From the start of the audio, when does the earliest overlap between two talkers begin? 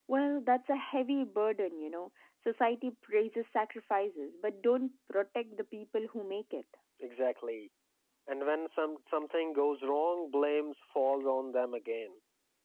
none

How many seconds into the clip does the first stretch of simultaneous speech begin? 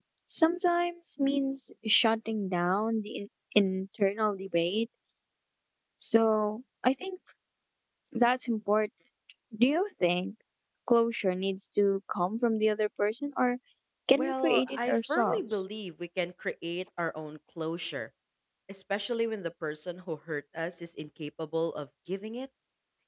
14 s

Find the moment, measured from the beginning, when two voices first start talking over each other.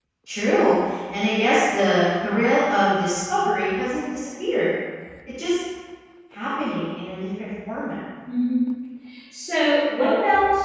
none

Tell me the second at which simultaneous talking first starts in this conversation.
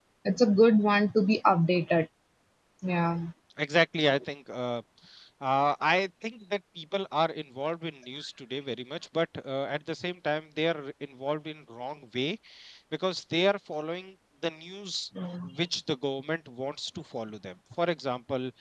none

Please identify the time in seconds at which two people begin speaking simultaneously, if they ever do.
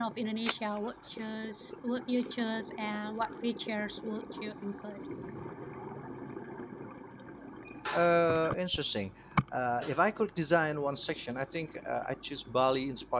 none

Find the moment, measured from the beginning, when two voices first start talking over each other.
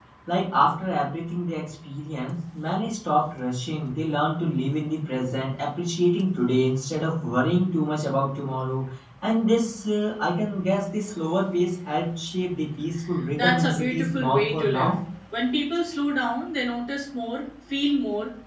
13 s

